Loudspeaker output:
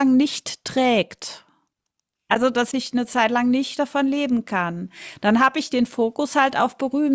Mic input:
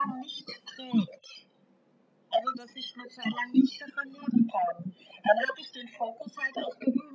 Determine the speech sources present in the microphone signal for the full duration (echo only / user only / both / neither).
echo only